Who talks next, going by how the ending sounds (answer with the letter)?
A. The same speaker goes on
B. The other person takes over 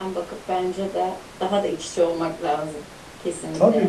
B